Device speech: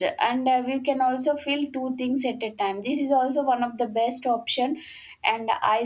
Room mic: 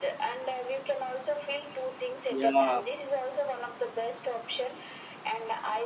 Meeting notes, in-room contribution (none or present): present